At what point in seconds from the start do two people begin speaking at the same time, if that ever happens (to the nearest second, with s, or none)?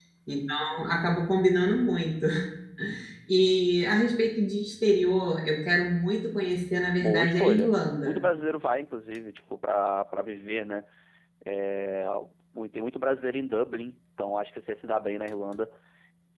7 s